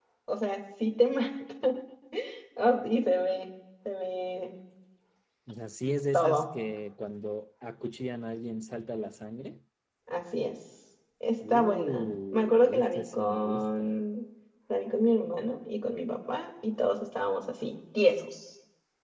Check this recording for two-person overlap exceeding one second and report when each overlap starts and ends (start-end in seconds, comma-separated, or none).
11.5-13.9